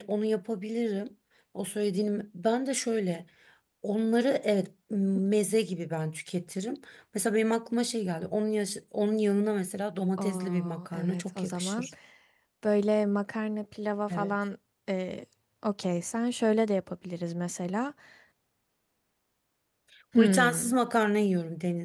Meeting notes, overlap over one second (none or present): present